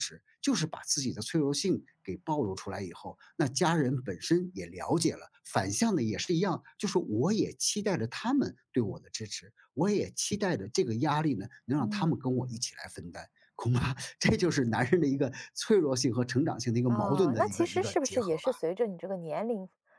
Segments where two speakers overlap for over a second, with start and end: 16.9-18.5

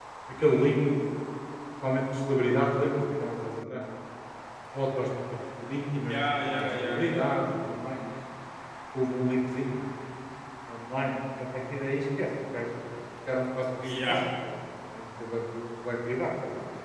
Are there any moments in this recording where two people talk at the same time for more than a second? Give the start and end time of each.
6.1-7.3

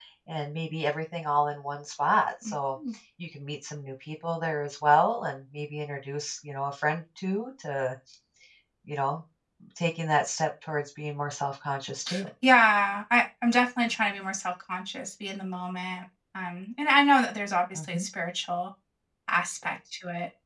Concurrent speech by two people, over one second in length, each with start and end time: none

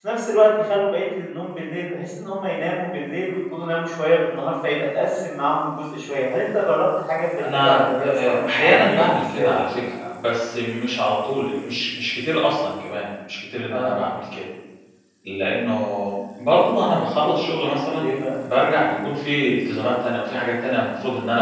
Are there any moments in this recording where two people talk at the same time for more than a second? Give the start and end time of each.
7.4-9.6

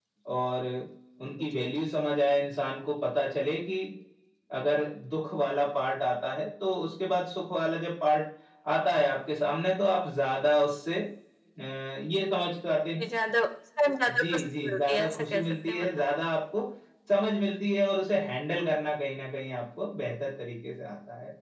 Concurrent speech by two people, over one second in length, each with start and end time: 14.1-15.9

